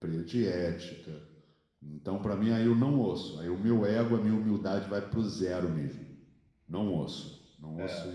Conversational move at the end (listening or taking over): taking over